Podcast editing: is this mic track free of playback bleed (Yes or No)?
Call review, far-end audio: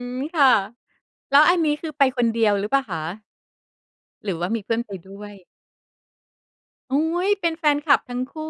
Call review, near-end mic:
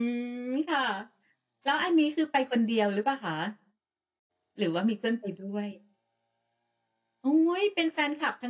No